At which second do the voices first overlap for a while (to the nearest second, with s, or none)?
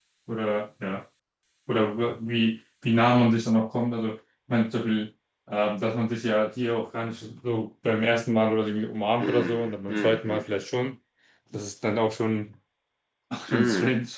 9 s